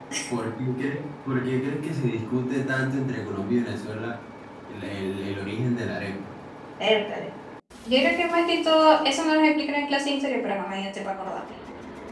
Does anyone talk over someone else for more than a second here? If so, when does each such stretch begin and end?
none

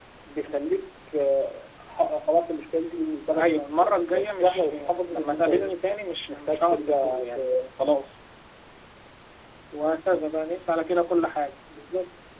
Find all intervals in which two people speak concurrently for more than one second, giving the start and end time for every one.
3.3-5.8, 6.2-7.5

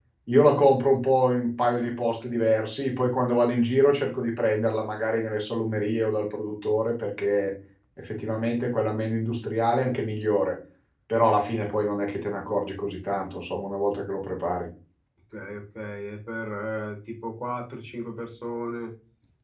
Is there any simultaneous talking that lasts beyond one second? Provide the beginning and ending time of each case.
none

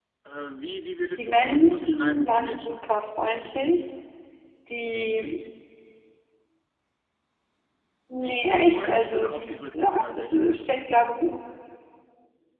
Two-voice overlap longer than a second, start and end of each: 1.2-2.8, 8.2-10.3

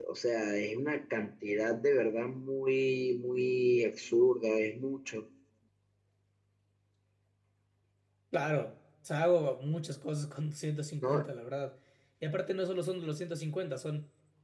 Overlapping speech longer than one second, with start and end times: none

